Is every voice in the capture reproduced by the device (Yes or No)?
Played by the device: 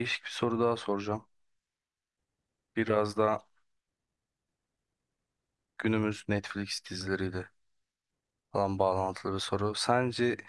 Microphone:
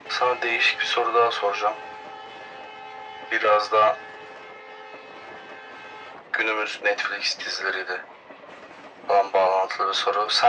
Yes